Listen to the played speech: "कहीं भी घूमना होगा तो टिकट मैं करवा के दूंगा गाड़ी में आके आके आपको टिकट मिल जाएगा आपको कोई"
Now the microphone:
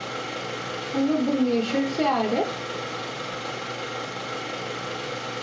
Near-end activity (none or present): present